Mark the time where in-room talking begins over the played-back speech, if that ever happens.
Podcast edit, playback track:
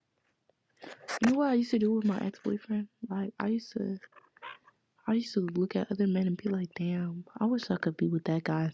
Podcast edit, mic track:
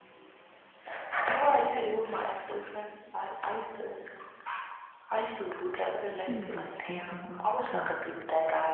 6.0 s

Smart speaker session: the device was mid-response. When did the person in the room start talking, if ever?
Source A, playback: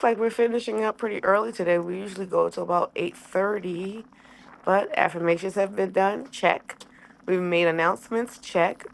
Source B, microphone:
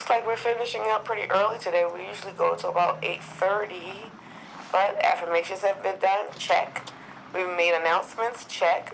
none

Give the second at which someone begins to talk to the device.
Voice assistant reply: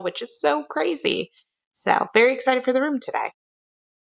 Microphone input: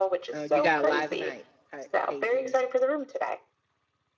0.3 s

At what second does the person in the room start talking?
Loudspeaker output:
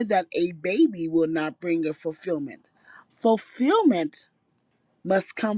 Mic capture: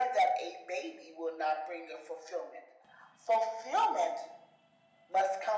none

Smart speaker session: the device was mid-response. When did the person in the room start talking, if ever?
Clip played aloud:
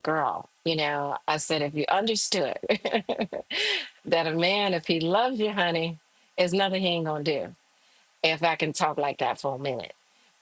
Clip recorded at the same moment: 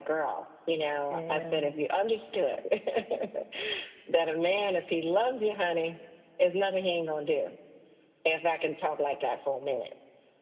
1.1 s

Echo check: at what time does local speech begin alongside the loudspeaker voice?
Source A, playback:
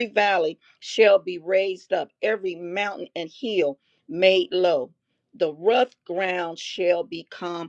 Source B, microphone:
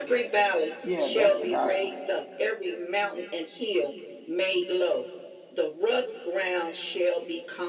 0.8 s

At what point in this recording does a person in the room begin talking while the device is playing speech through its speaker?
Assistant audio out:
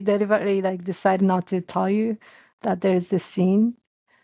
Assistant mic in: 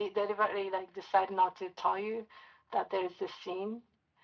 none

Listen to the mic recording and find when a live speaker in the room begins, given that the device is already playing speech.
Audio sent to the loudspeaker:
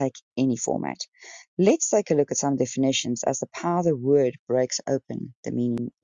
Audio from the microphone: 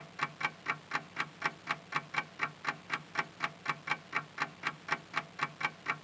none

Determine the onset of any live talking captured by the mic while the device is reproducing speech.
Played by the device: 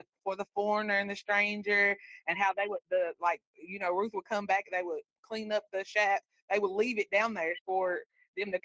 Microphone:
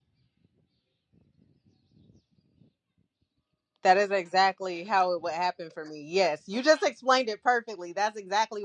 3.8 s

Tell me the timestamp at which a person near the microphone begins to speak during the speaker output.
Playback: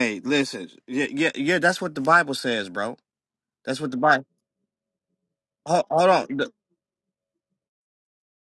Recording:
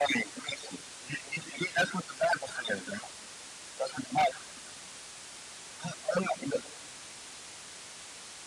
none

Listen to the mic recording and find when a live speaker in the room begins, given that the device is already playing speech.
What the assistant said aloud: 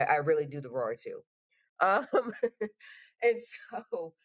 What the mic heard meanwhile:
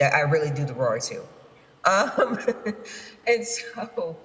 none

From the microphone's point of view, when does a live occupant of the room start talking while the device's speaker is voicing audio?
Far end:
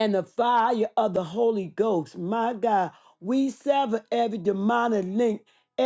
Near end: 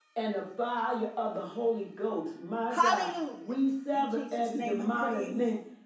2.7 s

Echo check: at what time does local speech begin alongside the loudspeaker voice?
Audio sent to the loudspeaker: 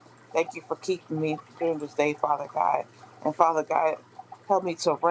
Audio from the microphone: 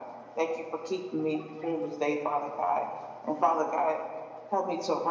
none

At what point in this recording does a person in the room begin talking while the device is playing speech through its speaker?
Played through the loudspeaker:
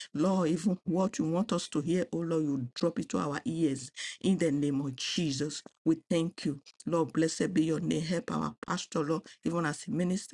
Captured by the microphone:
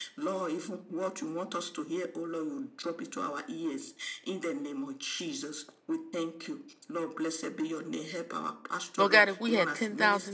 9.0 s

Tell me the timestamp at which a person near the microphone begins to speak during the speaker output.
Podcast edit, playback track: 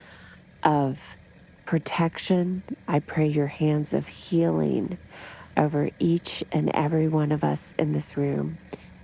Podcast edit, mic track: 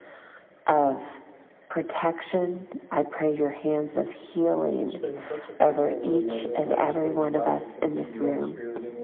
4.8 s

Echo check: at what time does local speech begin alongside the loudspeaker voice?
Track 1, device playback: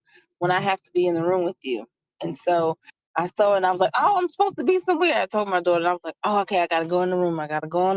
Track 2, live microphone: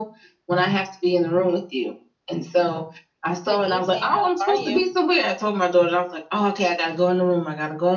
3.4 s

